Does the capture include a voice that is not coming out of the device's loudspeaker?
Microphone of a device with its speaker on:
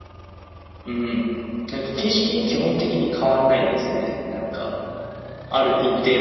Yes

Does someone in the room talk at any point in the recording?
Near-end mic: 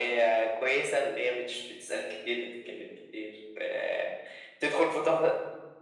No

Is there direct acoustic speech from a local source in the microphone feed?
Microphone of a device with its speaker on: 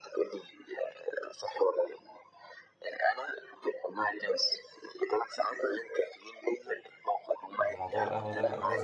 Yes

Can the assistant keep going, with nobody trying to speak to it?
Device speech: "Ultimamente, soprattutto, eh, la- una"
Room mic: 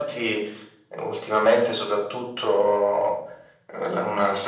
Yes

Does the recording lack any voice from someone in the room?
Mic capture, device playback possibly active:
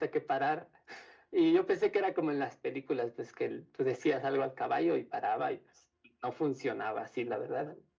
Yes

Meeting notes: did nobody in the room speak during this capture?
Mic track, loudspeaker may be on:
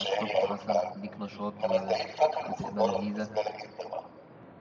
No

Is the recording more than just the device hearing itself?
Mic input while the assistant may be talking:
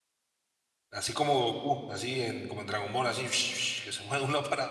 Yes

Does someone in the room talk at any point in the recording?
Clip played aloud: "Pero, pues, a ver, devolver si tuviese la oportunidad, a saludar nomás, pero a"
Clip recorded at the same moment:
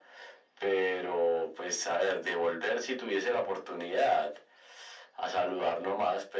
No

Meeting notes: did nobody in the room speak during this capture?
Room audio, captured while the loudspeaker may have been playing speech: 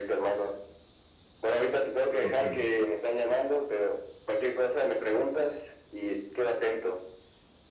No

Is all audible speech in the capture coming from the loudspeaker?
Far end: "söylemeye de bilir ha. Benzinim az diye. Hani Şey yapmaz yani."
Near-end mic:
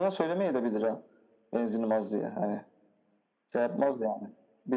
Yes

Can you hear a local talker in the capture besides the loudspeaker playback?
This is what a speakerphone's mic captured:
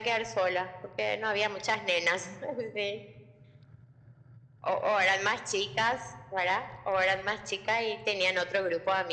No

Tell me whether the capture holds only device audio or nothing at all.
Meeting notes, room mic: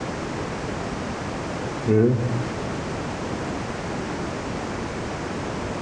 No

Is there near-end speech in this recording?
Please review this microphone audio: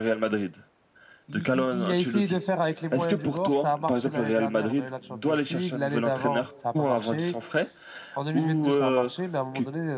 Yes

